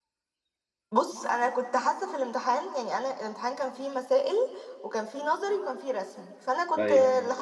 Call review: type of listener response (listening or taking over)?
listening